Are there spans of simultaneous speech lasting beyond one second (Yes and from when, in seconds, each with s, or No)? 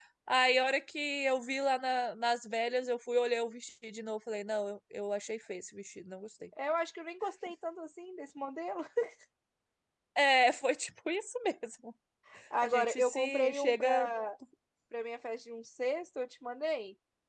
Yes, from 12.6 s